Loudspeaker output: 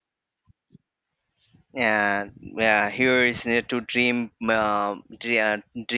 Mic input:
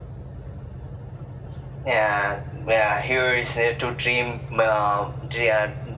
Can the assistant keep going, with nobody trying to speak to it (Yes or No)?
Yes